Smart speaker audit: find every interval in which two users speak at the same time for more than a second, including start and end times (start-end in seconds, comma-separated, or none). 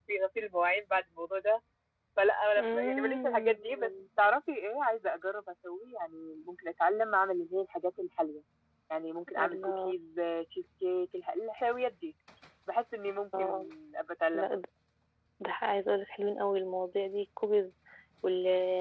2.6-3.9